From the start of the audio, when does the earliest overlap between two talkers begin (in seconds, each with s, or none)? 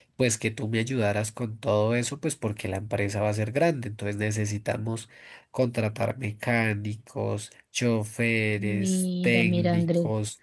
8.6 s